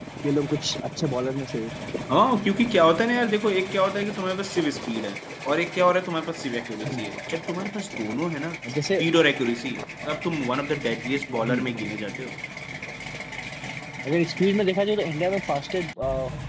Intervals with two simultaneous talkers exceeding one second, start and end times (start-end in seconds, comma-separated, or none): none